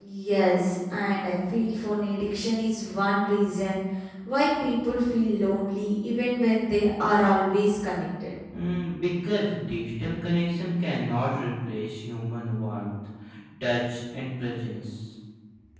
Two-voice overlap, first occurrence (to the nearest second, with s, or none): none